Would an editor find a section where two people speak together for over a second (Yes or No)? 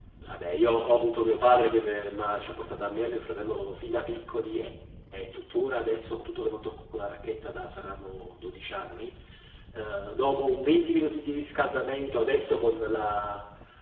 No